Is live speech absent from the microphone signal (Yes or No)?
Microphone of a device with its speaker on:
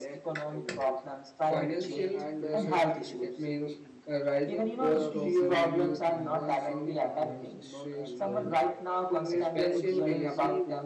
No